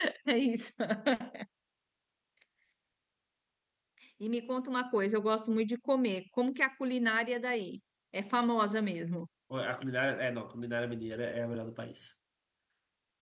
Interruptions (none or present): none